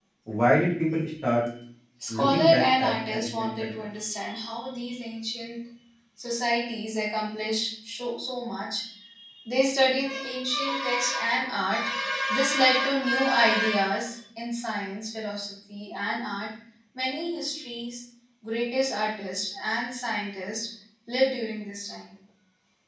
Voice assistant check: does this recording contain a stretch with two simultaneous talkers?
Yes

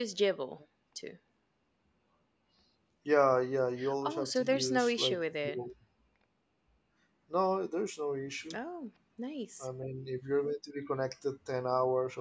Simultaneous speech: Yes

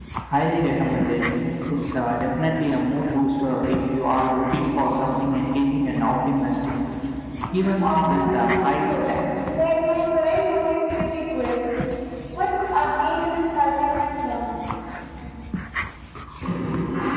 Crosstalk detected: Yes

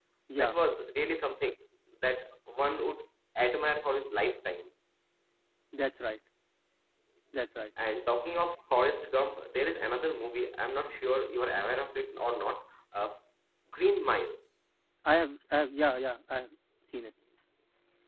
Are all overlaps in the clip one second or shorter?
Yes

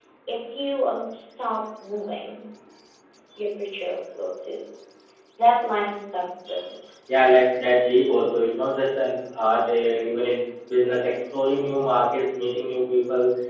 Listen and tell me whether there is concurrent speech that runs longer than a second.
No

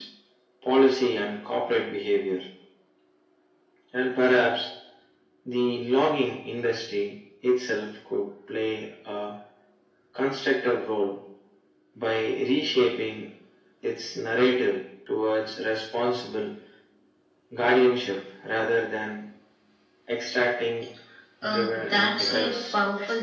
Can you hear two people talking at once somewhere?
Yes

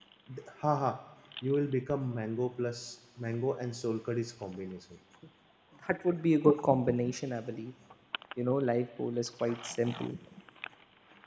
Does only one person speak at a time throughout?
Yes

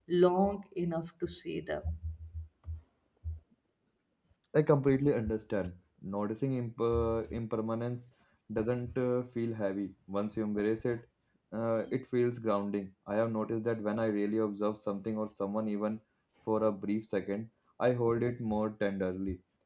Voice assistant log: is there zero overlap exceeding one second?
Yes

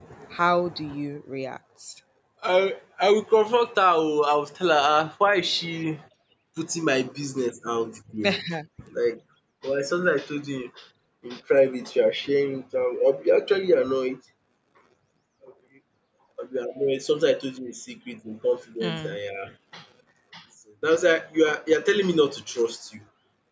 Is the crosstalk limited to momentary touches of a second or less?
Yes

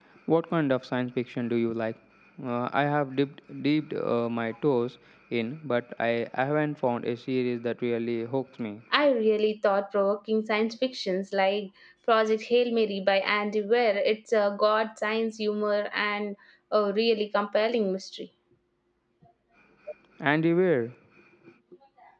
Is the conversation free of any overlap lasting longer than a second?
Yes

